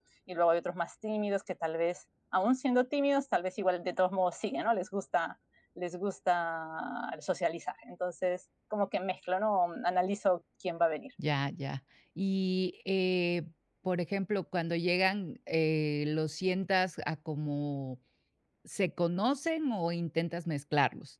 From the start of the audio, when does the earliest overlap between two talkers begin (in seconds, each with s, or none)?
none